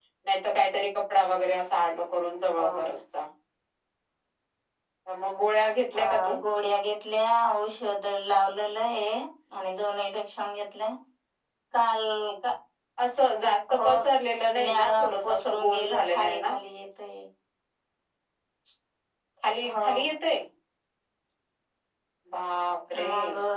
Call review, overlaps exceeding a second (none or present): present